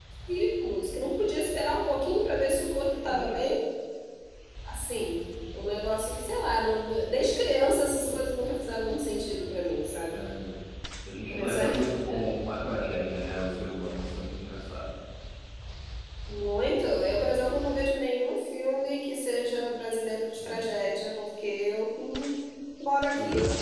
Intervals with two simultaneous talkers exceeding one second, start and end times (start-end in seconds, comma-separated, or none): none